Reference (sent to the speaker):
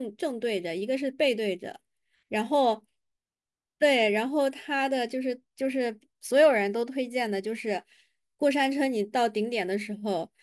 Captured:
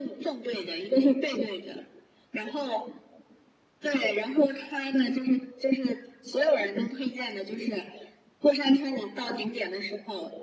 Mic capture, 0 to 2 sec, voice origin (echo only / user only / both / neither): echo only